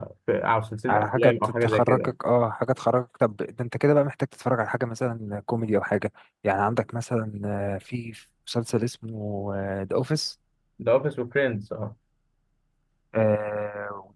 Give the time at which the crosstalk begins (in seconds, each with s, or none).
0.9 s